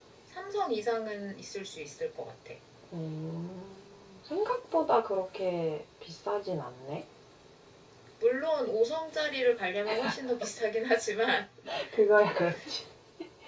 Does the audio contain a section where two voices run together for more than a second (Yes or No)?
No